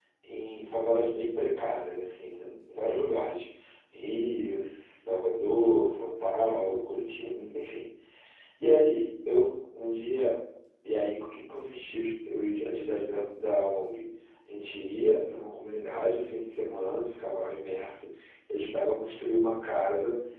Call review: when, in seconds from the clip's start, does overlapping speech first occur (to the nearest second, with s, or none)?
none